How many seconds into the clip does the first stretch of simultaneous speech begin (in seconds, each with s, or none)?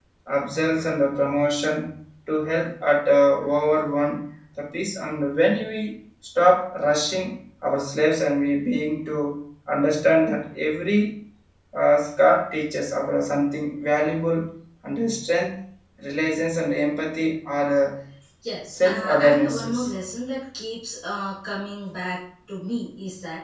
18.7 s